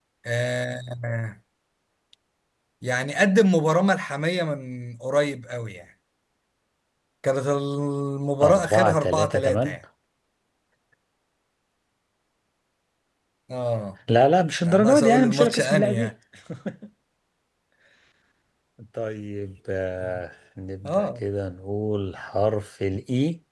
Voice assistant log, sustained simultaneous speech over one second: present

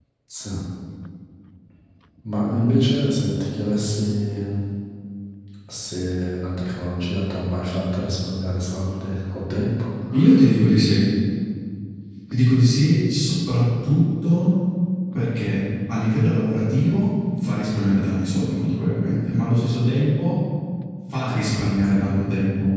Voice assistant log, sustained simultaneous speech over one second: none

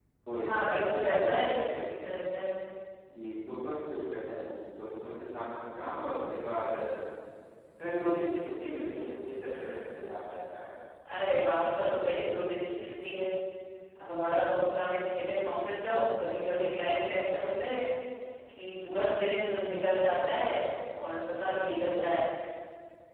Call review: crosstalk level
present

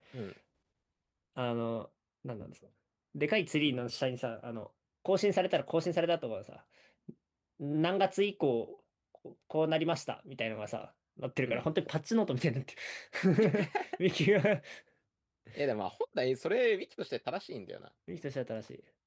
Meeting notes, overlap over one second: none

